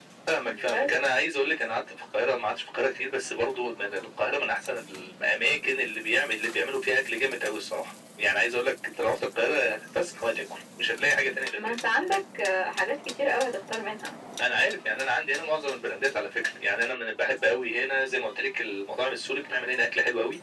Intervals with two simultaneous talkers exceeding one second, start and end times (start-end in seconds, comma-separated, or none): none